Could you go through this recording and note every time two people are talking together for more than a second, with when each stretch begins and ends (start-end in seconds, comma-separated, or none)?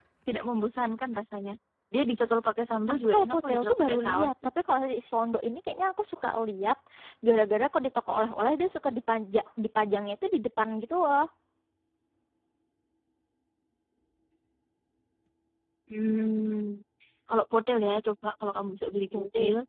3.0-4.3